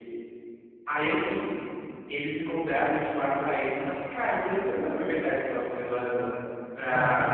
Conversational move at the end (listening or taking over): listening